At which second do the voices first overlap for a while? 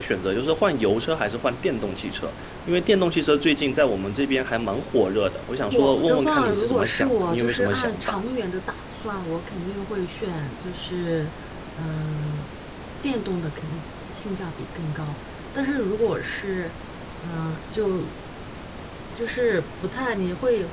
5.7 s

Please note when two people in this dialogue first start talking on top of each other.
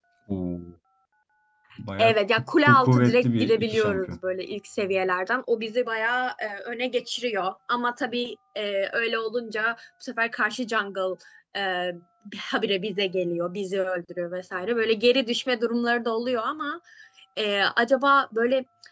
2.0 s

